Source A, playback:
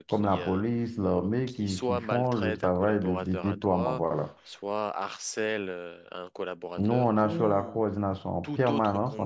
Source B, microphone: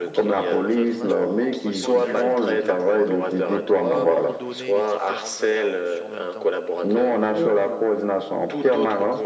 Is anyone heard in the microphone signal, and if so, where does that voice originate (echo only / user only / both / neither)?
both